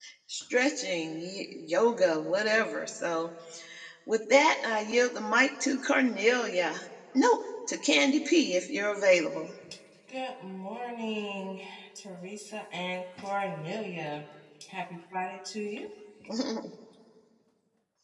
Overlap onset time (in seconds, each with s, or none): none